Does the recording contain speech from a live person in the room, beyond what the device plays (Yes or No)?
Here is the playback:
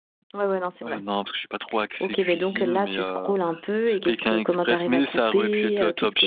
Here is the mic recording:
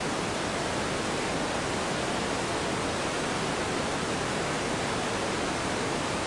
No